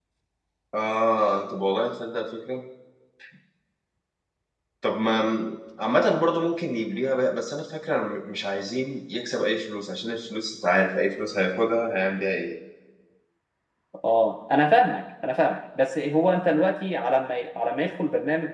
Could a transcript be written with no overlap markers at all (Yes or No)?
Yes